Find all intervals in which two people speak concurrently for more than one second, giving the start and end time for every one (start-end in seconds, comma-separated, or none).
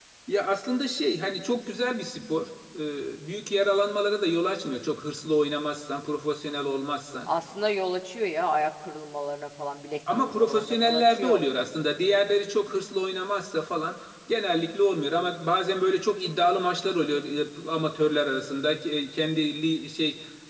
10.1-11.4